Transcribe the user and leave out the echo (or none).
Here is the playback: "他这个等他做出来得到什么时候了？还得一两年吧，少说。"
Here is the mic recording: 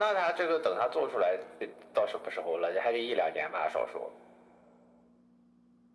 none